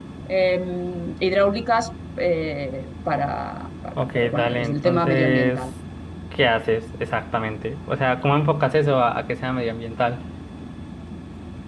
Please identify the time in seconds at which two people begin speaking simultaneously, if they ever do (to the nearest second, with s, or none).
4 s